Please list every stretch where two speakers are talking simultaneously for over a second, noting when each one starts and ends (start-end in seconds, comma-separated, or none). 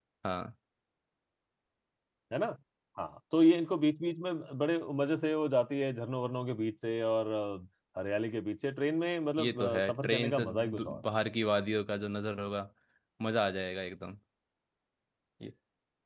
9.4-11.1